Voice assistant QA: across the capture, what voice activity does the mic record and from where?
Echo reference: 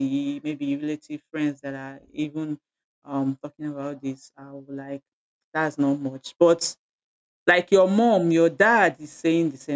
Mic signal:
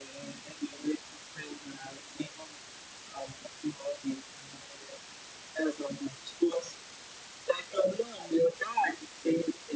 echo only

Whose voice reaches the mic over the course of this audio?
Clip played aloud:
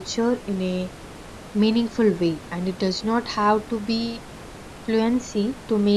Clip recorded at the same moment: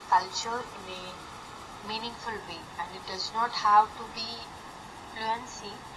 echo only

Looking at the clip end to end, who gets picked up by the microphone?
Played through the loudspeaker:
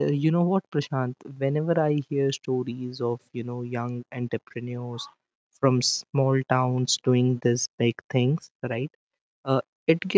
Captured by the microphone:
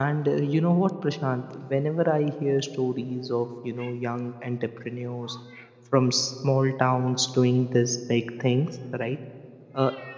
echo only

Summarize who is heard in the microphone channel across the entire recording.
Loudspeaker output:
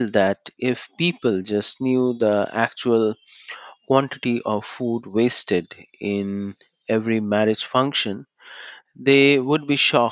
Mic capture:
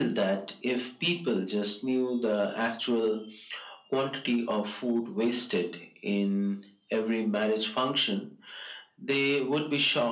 echo only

